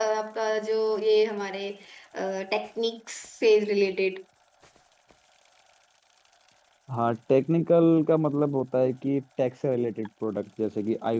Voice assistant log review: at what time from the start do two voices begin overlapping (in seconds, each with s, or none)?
none